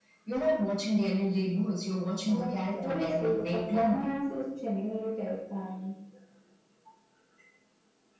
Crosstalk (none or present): present